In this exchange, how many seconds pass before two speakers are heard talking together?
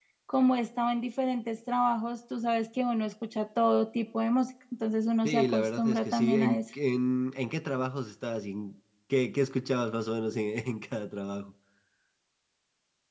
5.2 s

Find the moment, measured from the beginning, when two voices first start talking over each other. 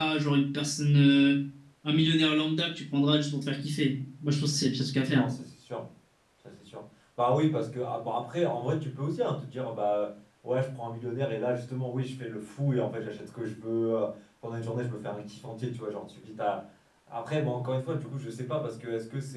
none

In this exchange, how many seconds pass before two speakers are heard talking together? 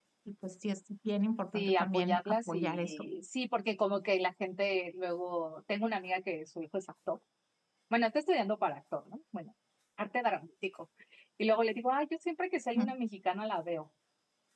1.5 s

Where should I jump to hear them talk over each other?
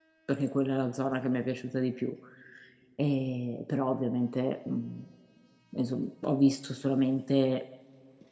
none

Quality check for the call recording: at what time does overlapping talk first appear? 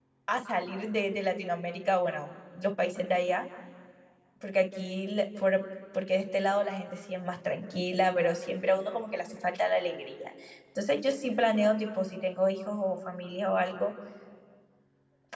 none

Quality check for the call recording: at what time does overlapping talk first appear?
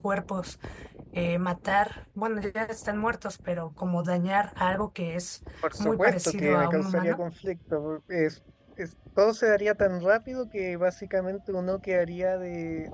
5.6 s

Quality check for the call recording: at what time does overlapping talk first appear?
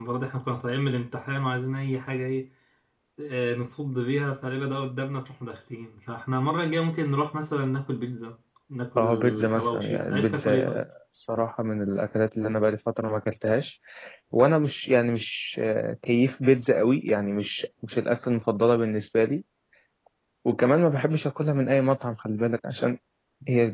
9.0 s

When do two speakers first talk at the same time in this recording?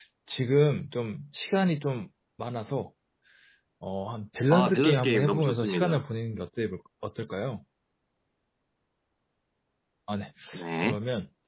4.5 s

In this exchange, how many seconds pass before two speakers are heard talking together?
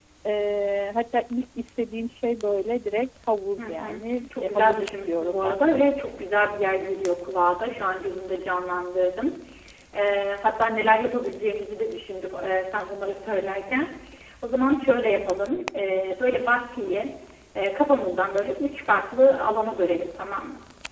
3.6 s

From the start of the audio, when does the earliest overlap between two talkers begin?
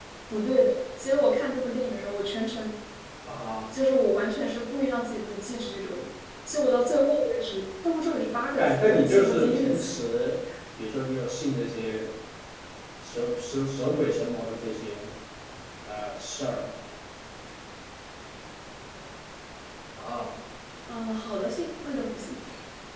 8.6 s

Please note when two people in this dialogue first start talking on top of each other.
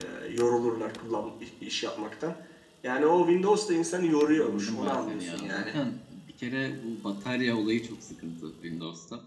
4.2 s

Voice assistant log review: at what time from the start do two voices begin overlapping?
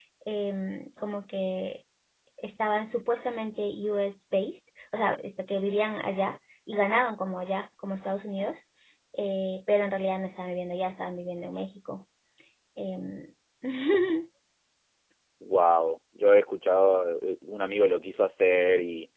none

